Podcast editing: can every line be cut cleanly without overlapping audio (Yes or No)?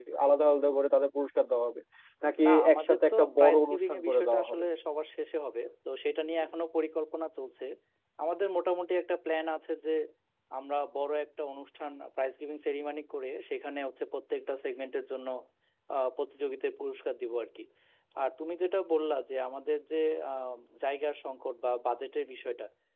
No